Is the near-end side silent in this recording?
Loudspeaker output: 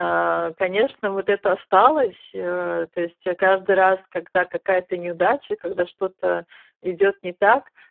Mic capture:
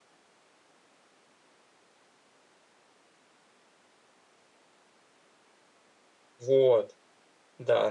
No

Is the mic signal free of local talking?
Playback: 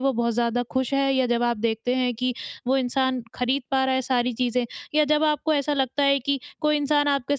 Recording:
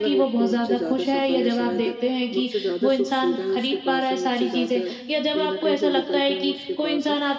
No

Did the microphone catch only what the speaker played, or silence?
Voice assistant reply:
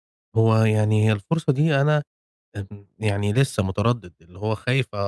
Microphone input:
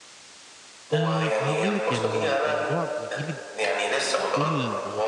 No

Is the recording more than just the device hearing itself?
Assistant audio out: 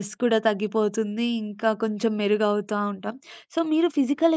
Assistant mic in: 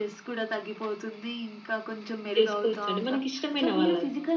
Yes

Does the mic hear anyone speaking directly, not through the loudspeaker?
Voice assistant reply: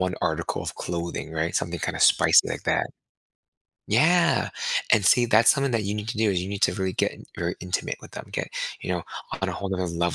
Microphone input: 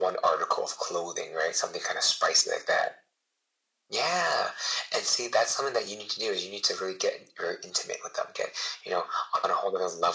No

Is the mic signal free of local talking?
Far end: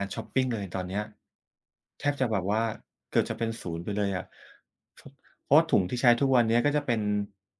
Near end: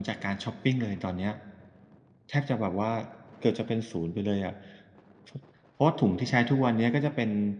Yes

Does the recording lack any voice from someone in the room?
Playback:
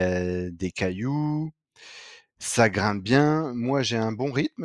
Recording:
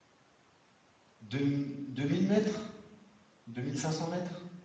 No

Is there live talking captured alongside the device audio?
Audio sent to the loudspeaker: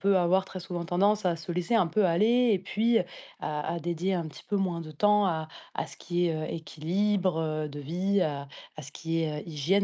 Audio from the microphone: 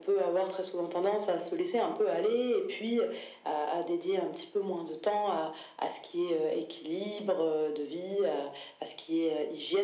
No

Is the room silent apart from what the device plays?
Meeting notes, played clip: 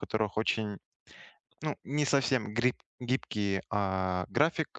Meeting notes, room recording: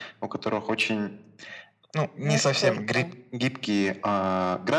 No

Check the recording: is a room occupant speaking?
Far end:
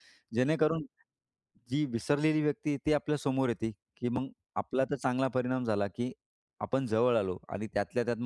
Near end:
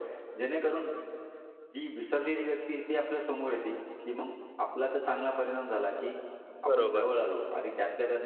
Yes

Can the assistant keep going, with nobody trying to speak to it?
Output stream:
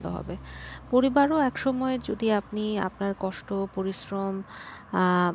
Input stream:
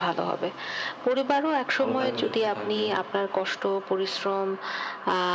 No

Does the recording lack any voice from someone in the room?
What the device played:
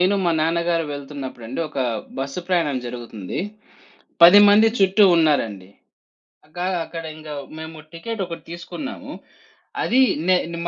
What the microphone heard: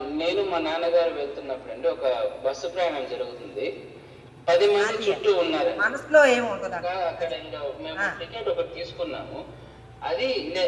No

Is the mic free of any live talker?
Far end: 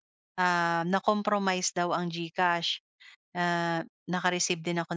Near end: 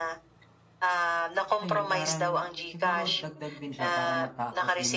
No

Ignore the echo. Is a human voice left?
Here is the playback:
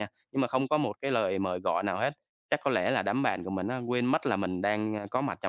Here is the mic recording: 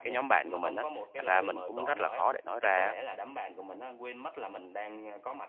Yes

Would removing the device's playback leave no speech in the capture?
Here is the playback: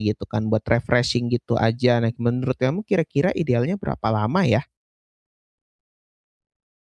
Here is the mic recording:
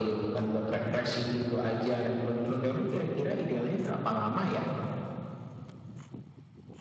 Yes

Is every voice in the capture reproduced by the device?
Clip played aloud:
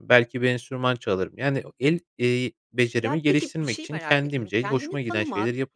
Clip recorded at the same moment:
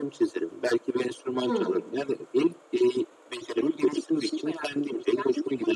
No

